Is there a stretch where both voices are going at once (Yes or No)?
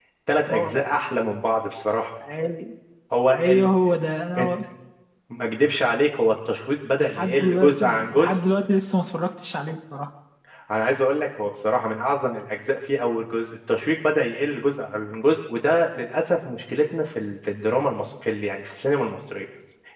Yes